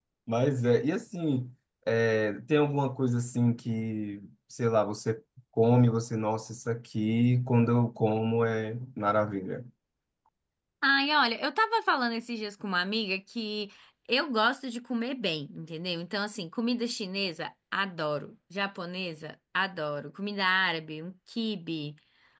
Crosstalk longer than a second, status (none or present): none